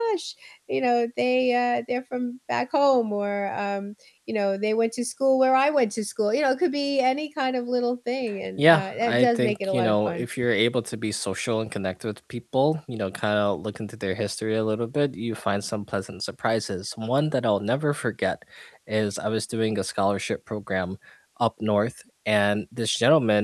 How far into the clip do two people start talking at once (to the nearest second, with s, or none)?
9 s